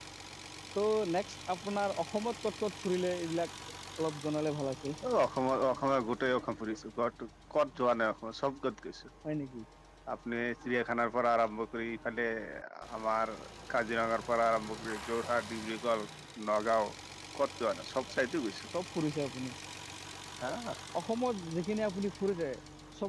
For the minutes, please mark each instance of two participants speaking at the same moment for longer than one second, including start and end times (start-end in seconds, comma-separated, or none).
none